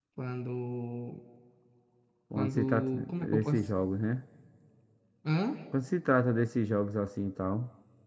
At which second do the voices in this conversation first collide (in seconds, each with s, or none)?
2.4 s